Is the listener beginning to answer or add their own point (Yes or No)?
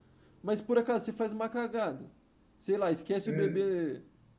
No